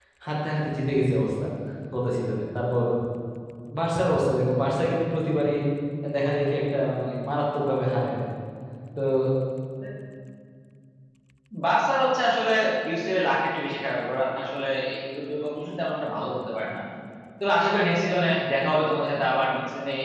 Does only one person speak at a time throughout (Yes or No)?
Yes